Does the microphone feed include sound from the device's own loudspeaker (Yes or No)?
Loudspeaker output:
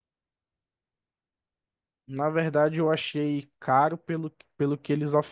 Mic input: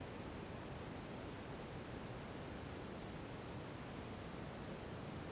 No